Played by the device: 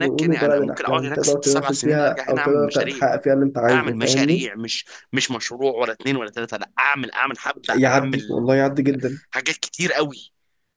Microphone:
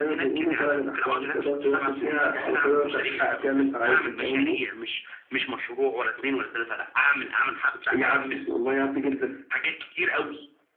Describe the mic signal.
both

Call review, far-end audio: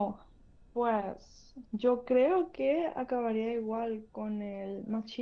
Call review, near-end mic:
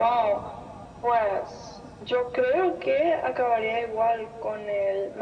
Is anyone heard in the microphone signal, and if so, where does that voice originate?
echo only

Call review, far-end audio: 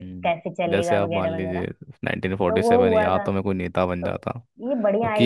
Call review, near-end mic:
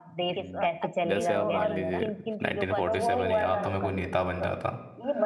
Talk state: both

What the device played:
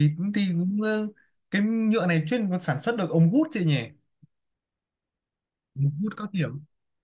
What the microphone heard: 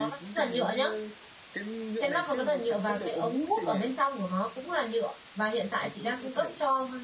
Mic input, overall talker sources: both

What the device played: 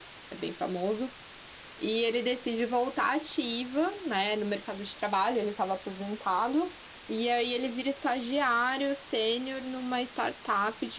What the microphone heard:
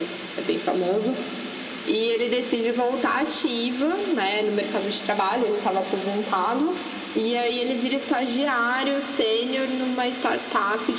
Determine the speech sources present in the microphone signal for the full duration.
echo only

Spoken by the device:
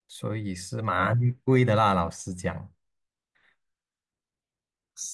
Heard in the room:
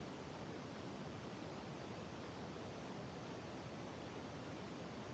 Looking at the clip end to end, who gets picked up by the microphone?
neither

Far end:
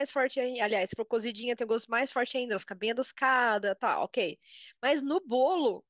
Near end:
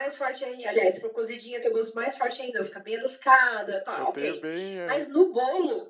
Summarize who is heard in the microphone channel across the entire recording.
both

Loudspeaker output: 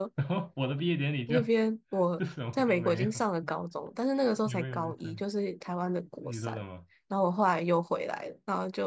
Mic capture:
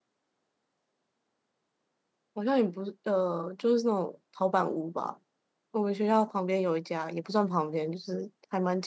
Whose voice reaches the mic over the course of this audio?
user only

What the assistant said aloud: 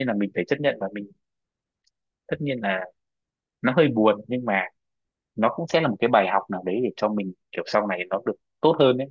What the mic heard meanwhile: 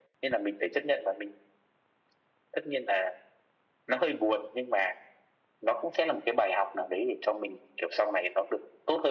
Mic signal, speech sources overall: echo only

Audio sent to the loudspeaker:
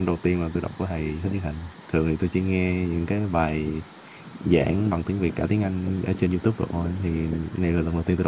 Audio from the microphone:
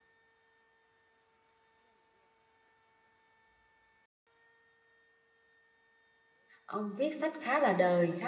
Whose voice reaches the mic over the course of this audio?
user only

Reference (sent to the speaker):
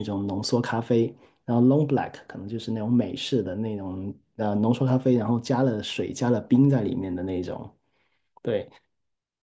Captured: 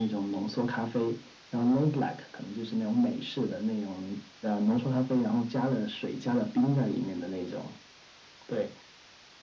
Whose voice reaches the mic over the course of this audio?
echo only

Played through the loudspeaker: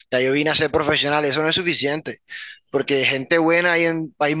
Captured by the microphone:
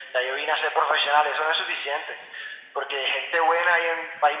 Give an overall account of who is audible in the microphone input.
echo only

